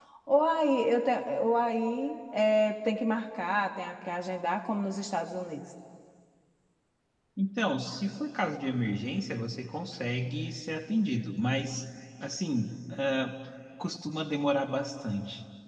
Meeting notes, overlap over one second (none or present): none